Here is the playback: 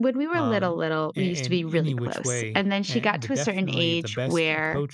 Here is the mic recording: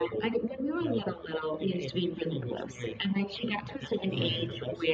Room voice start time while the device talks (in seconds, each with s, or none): 4.0 s